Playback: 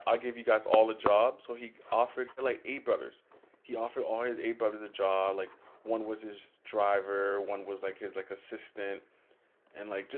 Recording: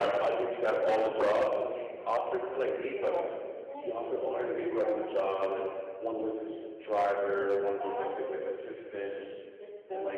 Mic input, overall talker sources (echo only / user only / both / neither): both